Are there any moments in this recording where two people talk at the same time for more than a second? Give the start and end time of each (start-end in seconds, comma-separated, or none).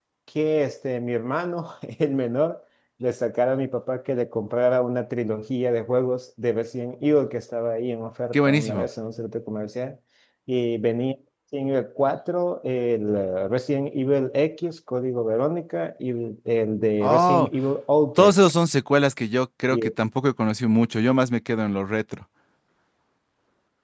none